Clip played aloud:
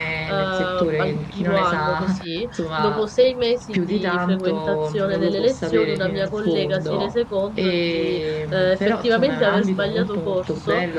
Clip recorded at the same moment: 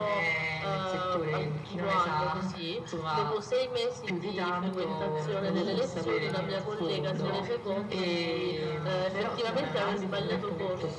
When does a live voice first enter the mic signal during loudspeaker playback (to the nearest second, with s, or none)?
5 s